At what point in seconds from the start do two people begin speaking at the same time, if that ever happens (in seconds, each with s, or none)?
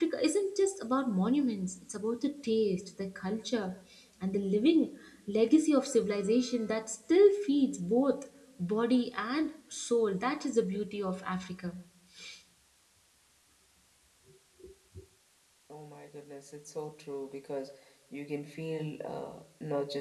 none